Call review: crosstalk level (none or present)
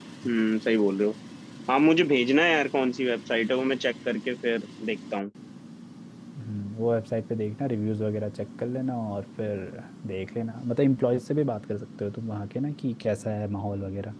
none